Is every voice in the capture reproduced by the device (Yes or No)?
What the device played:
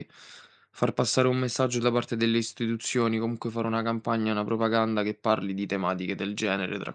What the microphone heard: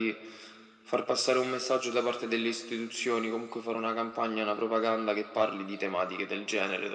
Yes